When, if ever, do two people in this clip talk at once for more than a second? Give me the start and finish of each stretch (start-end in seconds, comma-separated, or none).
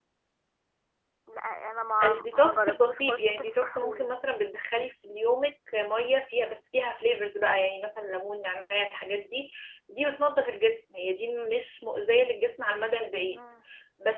2.0-4.1